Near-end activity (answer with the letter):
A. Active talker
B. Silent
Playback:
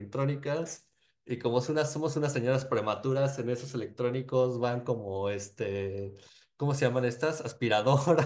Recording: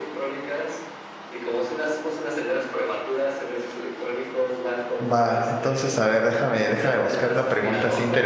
A